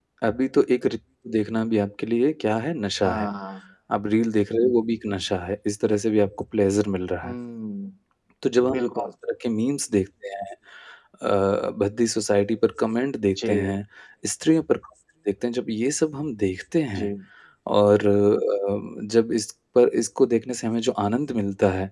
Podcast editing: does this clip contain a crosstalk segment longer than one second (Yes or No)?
No